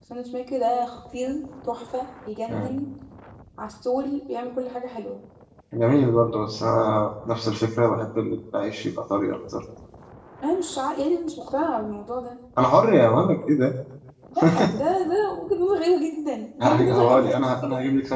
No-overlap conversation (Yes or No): No